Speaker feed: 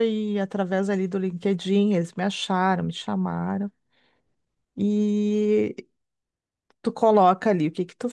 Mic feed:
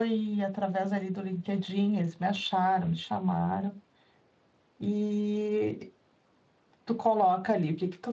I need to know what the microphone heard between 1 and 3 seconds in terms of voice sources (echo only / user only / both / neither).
echo only